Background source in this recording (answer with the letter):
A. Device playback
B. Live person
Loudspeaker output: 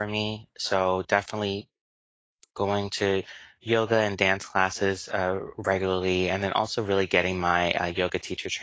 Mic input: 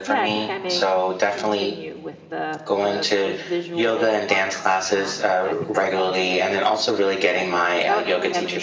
B